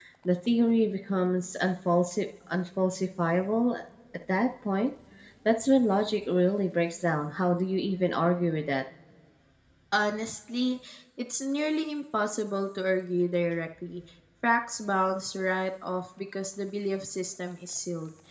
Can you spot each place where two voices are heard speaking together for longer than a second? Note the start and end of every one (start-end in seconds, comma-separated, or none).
none